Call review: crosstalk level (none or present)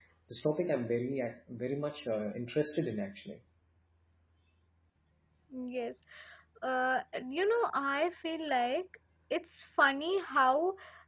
none